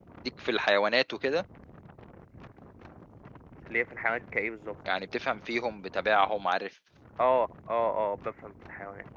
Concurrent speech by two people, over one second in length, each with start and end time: none

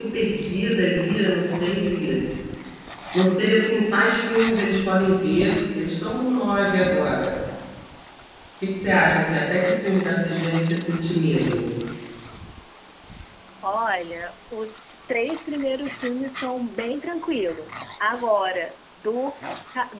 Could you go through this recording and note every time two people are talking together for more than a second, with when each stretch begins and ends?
none

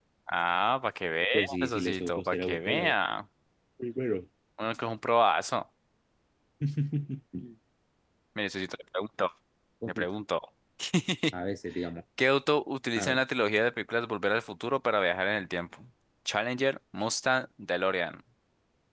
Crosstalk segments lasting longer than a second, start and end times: 1.3-3.0

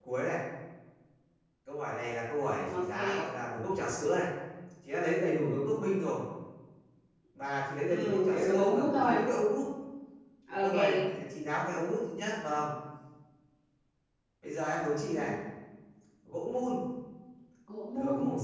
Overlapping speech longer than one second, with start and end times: 7.9-9.2

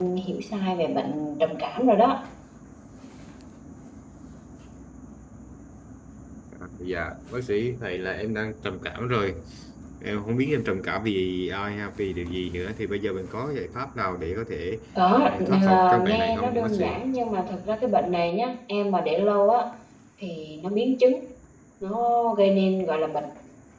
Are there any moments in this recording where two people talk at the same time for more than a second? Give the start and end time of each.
15.3-16.8

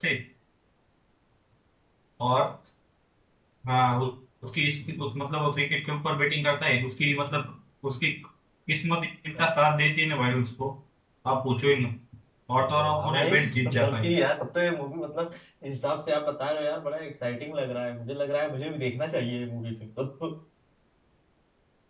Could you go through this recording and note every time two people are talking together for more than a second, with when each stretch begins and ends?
12.6-14.1

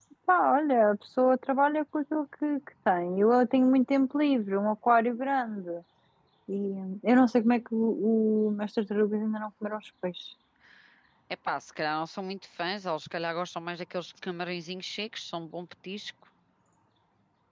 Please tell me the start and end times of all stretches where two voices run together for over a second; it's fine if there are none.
none

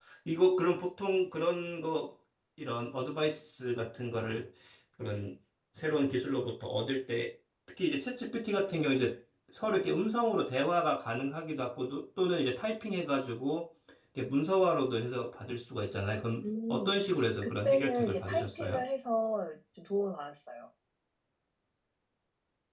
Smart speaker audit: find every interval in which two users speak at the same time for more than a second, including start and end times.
17.4-18.8

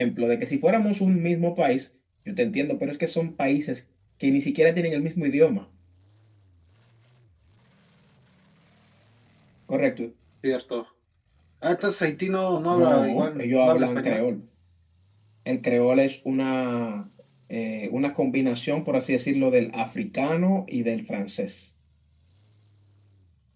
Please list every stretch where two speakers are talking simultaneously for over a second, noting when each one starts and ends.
12.7-14.2

